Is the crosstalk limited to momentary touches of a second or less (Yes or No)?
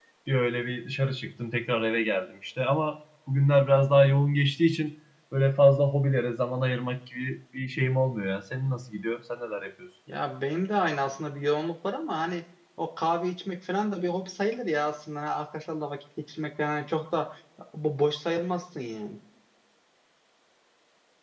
Yes